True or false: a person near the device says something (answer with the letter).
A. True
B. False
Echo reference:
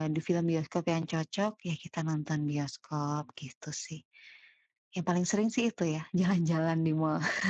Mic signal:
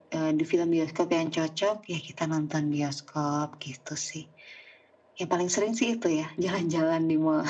B